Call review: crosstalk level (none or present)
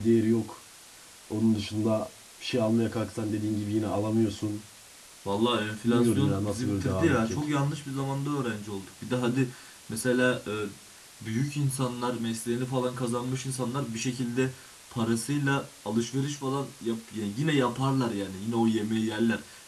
present